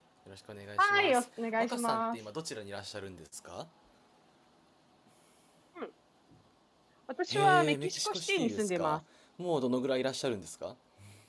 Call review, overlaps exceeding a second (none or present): present